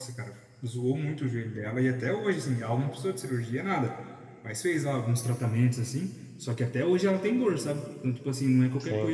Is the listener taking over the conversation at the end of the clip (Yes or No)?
No